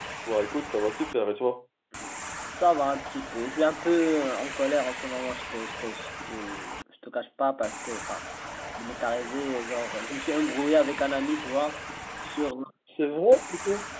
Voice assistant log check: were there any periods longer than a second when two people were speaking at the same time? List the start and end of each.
none

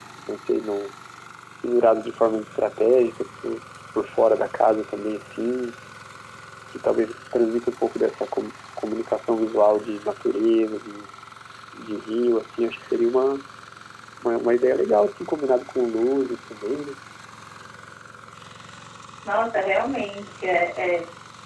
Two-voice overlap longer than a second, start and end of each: none

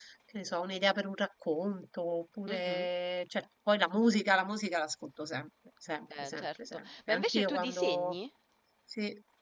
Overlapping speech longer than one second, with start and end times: 6.2-8.1

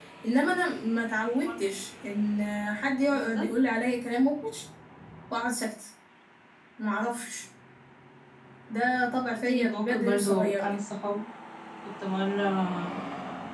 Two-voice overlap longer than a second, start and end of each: 9.5-10.8

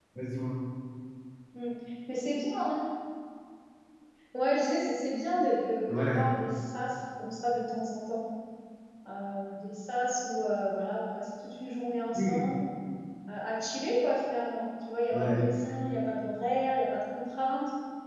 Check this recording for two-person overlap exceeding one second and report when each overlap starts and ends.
none

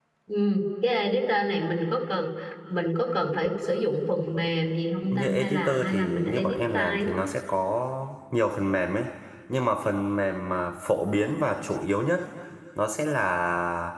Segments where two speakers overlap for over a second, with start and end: 5.1-7.0

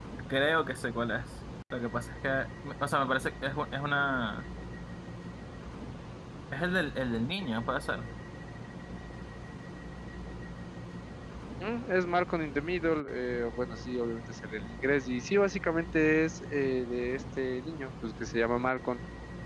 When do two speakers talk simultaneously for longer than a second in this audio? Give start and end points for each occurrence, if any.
none

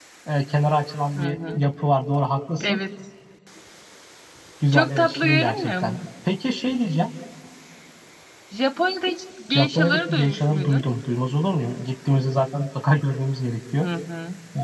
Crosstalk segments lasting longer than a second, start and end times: 4.7-6.0, 9.5-10.8

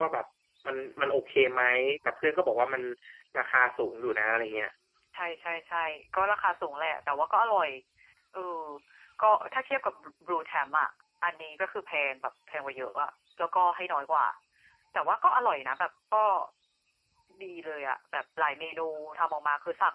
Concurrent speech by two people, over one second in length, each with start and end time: none

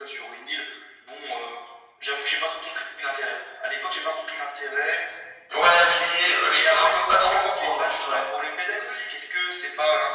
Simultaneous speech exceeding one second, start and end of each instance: 6.4-8.2

